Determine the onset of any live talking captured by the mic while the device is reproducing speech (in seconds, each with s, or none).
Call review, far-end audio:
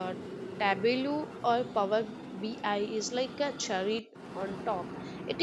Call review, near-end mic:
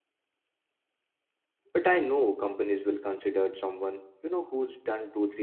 1.7 s